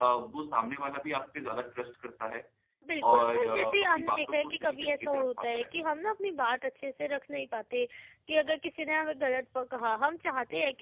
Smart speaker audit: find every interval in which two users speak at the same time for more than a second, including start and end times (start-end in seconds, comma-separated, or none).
3.1-5.8